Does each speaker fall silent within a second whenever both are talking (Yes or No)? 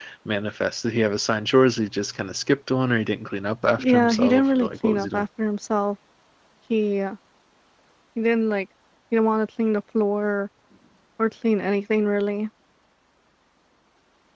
No